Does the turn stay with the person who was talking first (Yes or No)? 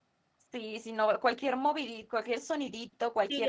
No